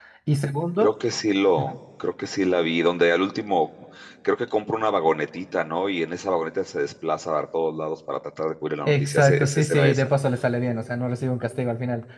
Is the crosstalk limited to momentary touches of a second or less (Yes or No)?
No